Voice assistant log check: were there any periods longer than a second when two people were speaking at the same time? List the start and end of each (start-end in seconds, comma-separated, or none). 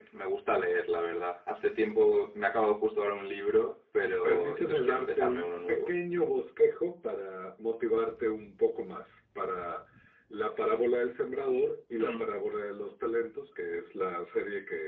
4.2-5.9